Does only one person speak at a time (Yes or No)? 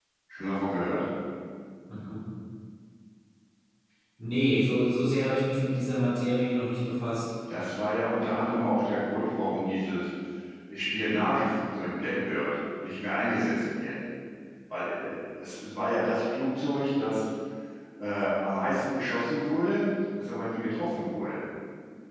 Yes